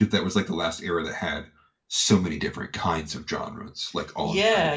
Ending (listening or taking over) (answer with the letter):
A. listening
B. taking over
B